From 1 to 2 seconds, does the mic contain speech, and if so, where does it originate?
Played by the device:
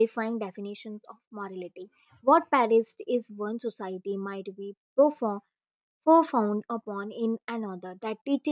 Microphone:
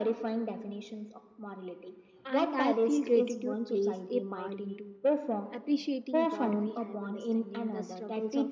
echo only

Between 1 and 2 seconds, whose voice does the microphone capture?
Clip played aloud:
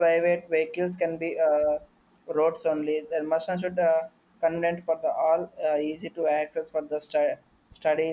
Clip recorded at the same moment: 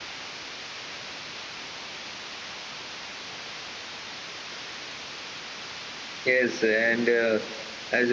neither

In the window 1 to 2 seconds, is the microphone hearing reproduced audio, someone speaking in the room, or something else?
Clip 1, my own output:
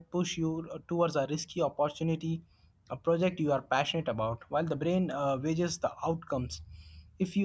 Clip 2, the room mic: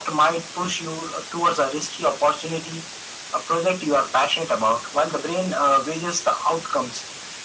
echo only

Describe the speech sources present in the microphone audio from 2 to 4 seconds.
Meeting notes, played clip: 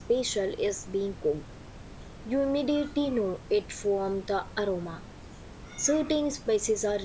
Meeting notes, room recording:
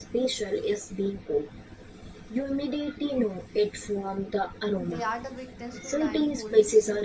echo only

